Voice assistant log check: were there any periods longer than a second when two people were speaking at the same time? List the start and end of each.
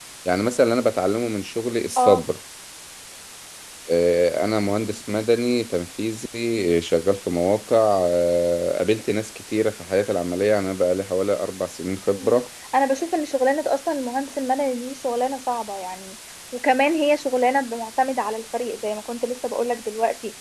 none

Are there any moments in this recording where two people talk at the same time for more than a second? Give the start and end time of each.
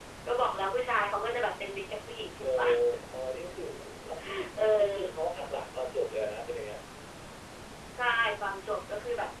none

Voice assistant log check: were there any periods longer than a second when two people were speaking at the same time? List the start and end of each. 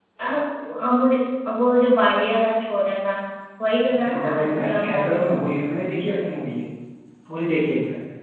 4.0-5.4

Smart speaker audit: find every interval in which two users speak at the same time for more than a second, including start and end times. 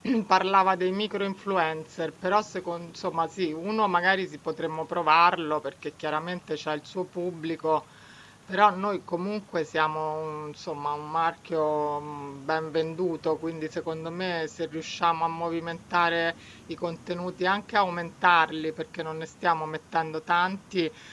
none

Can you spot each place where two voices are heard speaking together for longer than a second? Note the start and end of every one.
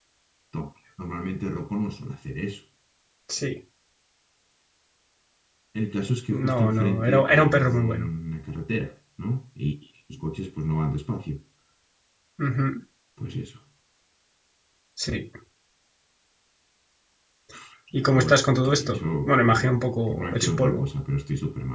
6.3-8.1, 18.0-20.8

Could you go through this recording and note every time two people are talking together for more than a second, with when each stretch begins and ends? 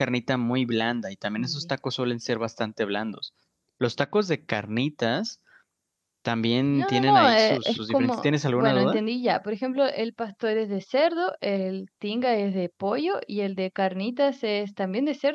6.7-9.0

